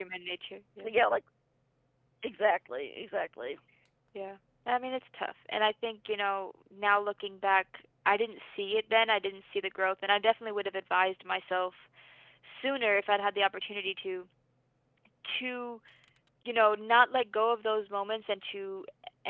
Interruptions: none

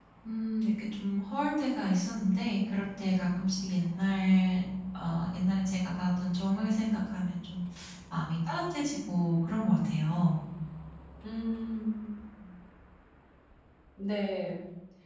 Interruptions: none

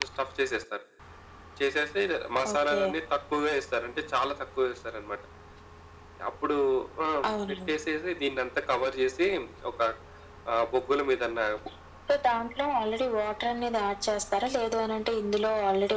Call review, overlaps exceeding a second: none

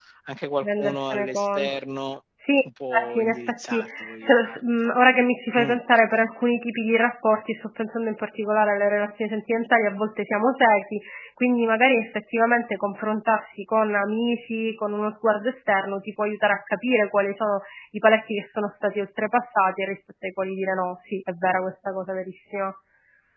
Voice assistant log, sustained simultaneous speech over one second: present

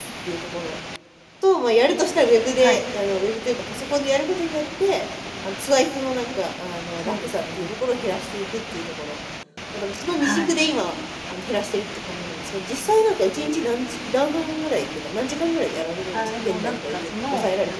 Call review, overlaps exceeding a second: present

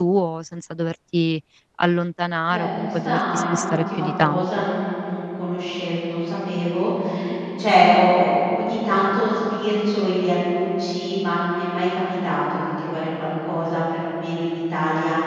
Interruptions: present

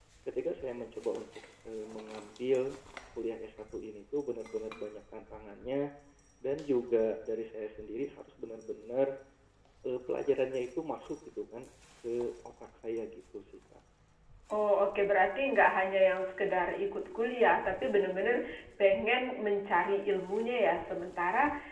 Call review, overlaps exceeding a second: none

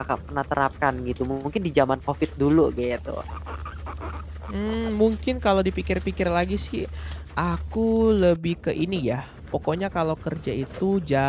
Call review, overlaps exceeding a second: none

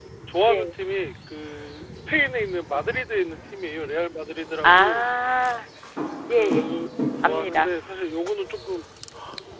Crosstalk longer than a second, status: none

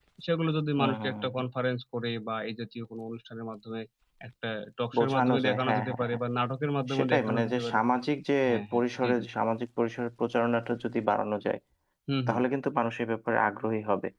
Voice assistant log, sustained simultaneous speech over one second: present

